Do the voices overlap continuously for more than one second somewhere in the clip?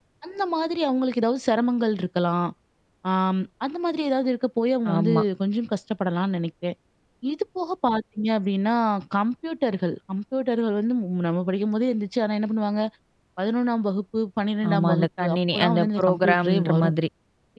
Yes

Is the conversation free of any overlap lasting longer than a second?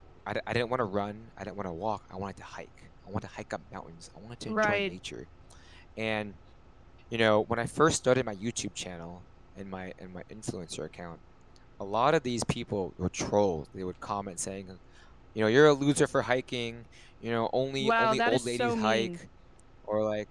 No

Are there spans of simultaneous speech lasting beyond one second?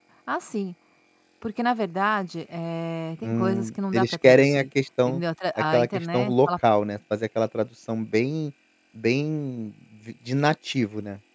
Yes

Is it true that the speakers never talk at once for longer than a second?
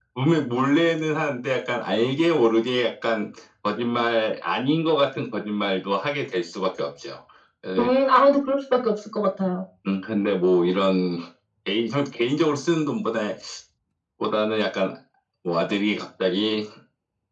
Yes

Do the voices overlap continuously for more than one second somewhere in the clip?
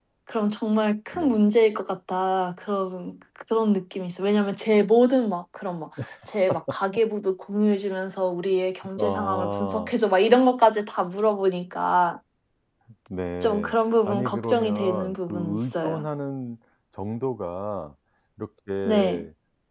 Yes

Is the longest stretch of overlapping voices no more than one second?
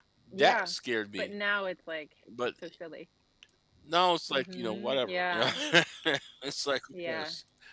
No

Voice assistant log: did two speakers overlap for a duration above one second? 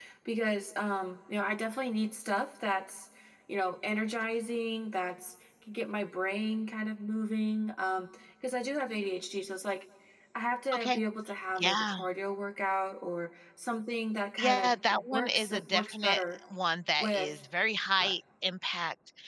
Yes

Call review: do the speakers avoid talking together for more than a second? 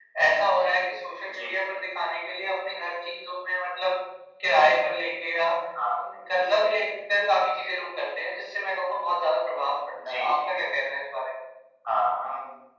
Yes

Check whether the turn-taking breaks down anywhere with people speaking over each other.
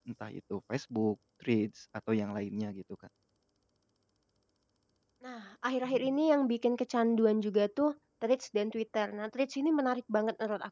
No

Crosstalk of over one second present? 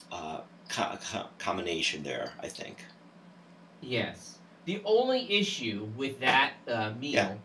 No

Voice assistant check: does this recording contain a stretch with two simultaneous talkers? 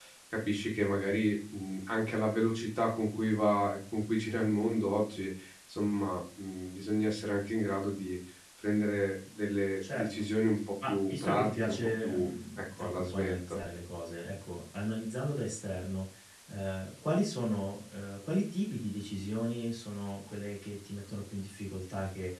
Yes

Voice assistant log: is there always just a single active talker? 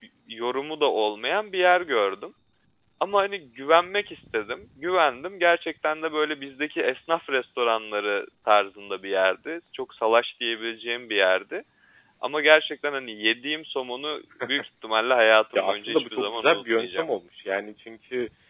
No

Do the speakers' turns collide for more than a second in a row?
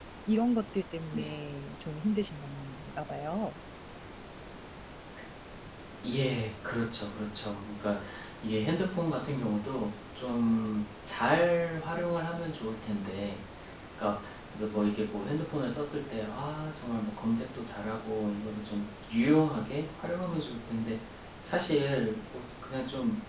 No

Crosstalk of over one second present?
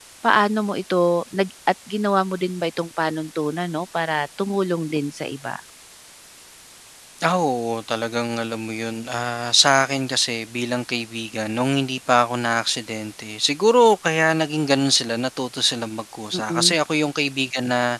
No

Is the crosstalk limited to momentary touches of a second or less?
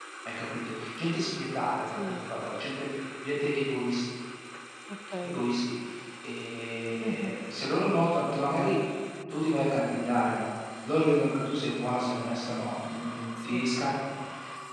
Yes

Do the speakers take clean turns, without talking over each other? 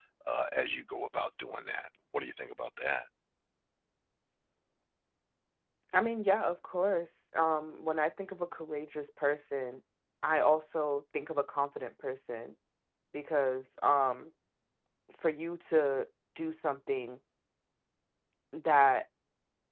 Yes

